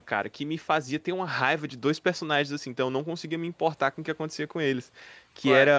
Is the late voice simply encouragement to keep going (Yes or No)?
Yes